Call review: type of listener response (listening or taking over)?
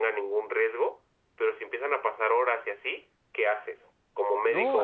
taking over